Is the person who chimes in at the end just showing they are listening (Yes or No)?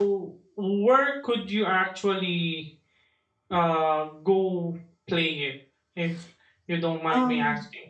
No